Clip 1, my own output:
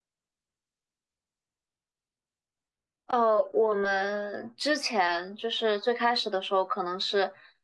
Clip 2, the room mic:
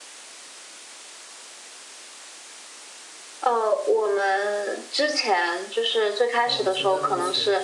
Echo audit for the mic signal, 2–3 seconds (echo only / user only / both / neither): neither